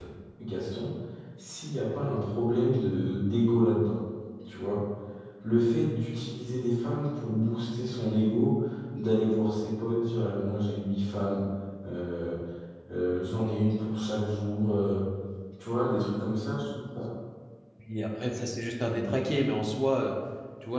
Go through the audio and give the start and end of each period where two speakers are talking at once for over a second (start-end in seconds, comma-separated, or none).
none